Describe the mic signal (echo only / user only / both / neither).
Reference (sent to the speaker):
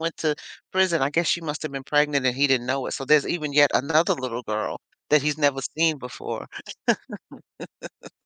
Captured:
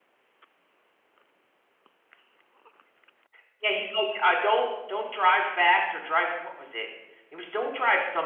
user only